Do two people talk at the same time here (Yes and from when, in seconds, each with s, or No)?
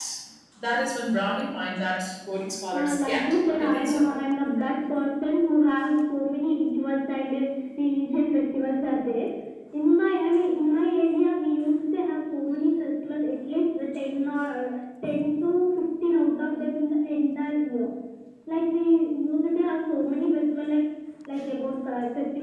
Yes, from 2.7 s